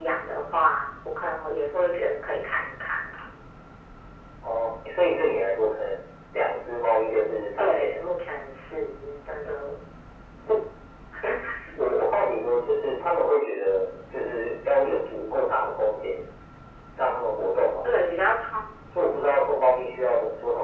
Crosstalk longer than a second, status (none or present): none